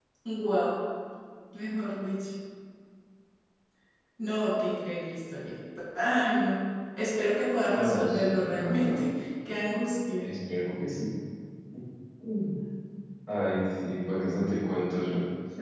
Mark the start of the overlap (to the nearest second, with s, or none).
8 s